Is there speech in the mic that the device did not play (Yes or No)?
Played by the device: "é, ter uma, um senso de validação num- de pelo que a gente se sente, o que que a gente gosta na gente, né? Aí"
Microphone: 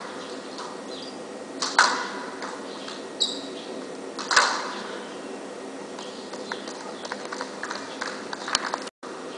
No